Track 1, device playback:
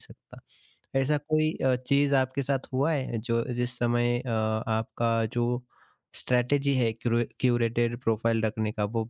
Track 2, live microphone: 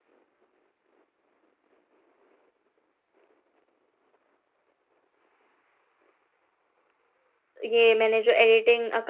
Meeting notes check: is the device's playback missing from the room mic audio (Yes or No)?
Yes